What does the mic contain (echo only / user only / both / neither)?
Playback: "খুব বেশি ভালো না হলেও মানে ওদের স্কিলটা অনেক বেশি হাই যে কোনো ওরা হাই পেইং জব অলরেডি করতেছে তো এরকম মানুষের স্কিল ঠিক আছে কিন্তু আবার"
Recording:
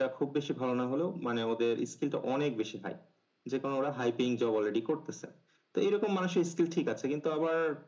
echo only